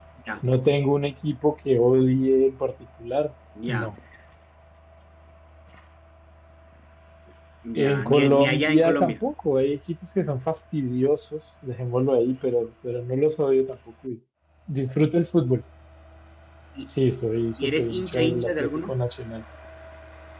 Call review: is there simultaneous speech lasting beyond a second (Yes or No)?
Yes